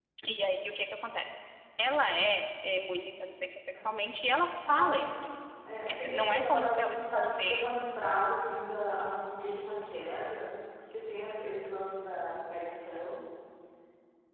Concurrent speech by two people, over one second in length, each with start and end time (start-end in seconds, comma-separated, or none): 5.9-7.7